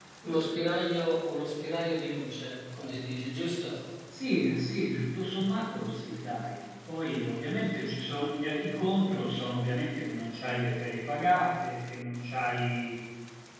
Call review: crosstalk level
none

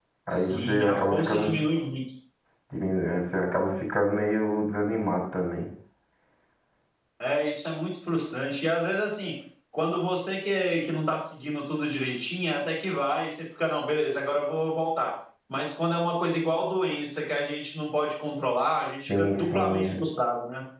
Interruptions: present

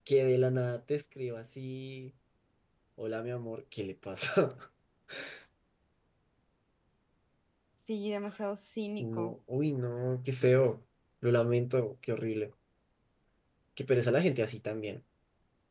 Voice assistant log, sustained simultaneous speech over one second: none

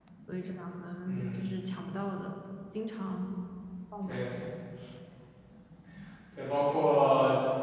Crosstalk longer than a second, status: none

